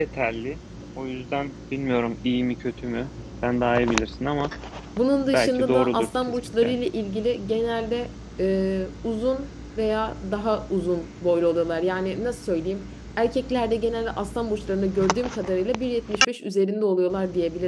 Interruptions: present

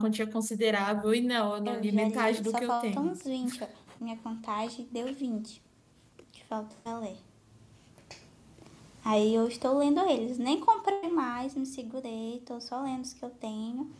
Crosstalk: present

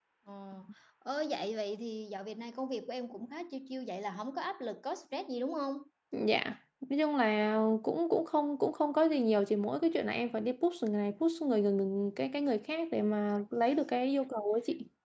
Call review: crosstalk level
none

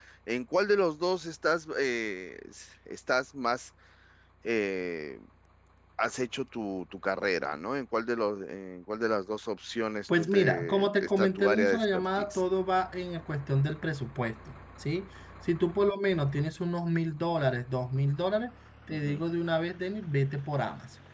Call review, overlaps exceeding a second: present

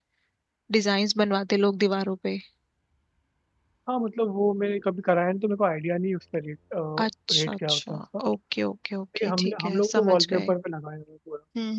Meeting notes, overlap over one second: present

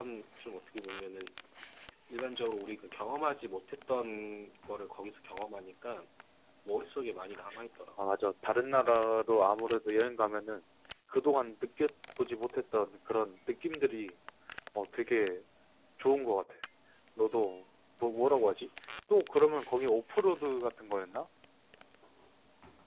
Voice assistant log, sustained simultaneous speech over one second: none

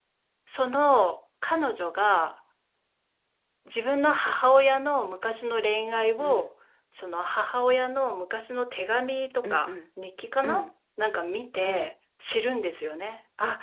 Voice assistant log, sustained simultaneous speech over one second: none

